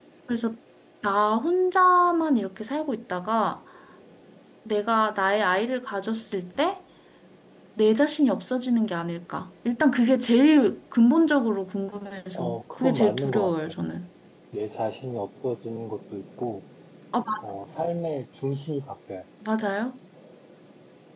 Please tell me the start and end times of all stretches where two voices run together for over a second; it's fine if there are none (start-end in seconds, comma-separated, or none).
12.4-13.7